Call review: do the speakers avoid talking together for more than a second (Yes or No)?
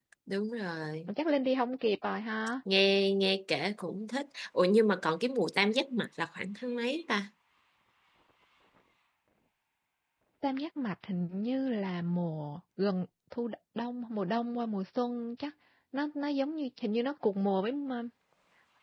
Yes